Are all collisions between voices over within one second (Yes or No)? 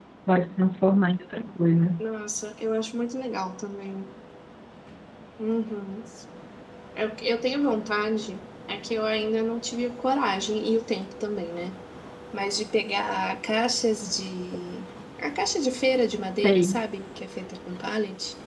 Yes